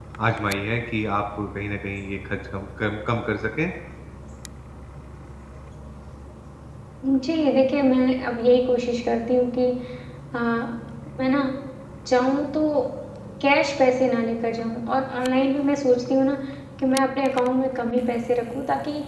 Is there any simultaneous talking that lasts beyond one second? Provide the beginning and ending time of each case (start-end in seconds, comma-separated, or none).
none